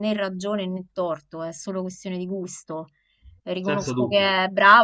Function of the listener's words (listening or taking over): listening